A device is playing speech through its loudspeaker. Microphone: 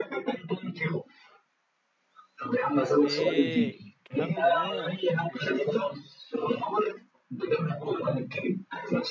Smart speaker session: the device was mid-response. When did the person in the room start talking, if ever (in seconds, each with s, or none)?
2.6 s